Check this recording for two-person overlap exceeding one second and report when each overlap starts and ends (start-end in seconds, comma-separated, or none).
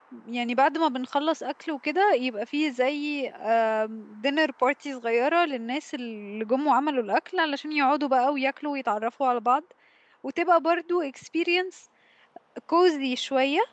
none